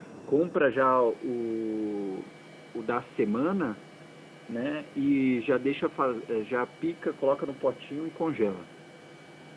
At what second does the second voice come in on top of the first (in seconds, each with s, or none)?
none